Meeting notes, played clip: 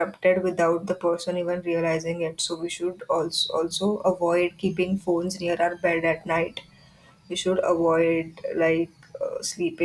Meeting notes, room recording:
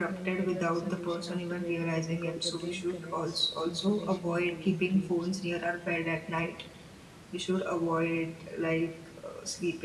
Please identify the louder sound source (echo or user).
echo